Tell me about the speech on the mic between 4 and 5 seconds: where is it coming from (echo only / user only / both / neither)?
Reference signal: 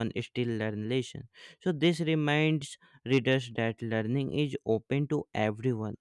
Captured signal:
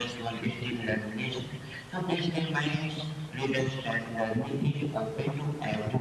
echo only